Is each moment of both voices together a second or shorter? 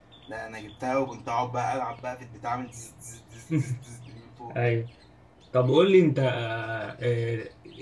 Yes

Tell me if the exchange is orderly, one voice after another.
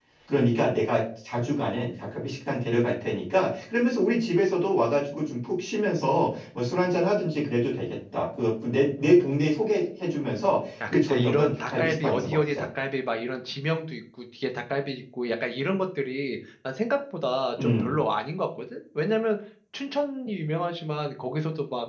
No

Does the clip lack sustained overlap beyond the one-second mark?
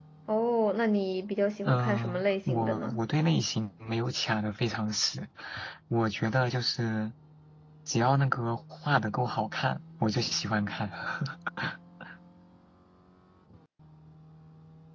No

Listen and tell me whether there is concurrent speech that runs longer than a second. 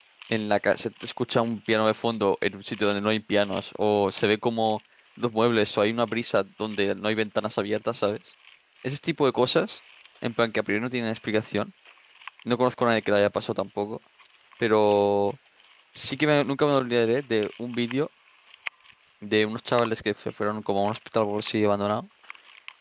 No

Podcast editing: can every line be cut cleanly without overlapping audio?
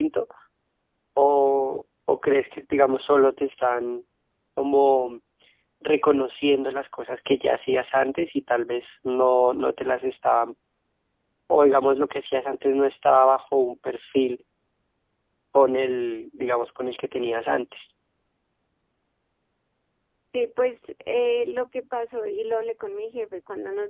Yes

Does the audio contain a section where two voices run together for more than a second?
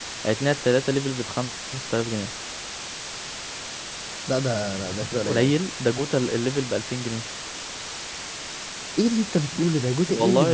No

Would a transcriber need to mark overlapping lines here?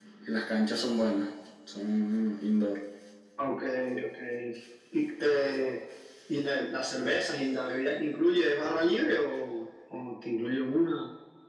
No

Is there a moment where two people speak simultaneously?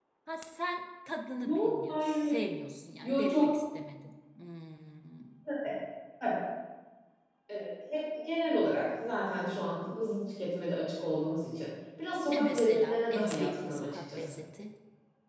Yes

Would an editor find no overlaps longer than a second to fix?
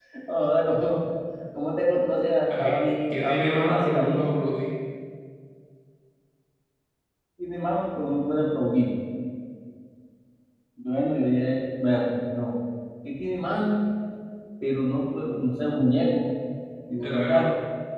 No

